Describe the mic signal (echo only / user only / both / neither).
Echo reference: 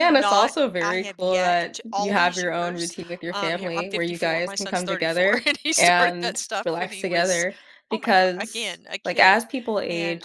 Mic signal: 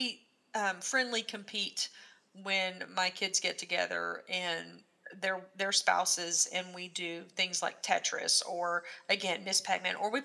user only